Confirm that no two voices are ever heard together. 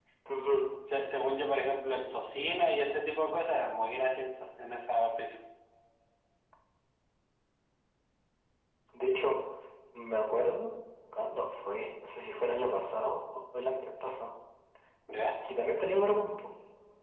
Yes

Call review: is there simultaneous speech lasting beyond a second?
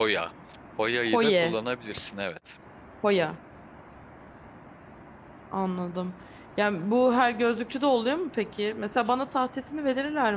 No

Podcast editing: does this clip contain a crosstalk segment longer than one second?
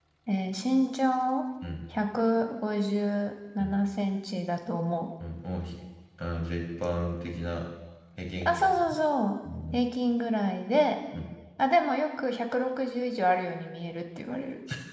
No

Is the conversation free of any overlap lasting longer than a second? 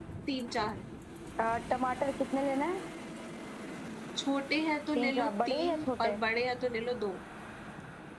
No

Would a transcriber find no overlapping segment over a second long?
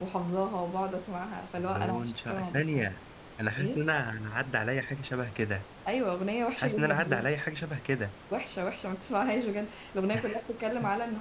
No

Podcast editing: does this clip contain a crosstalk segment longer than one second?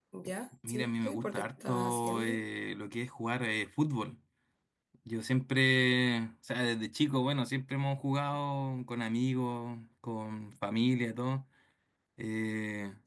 Yes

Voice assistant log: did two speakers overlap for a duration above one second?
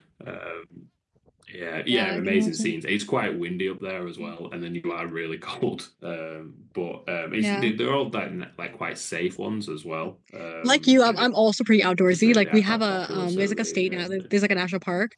Yes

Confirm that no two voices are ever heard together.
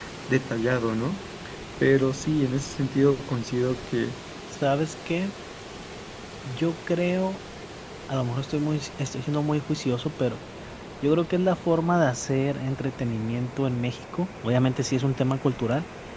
Yes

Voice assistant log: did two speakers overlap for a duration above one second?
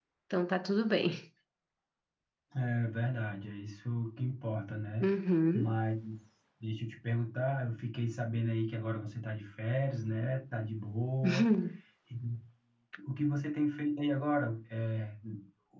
No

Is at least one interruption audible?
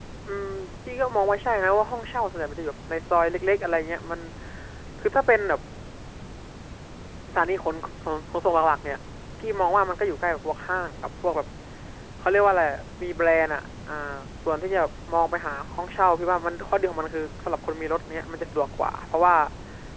No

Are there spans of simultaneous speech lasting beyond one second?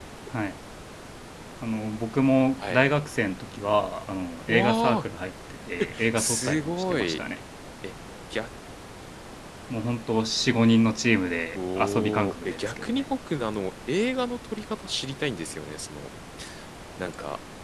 Yes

